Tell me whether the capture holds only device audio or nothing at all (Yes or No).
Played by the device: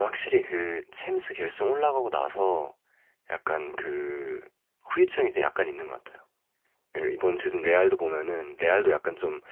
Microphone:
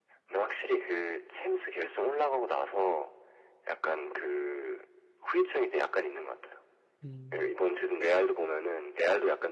No